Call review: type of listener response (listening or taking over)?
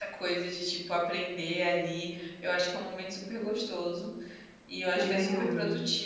listening